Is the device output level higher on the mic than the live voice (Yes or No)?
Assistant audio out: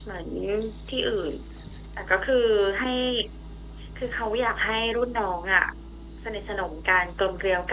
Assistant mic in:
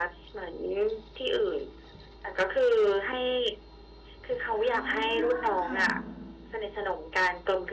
Yes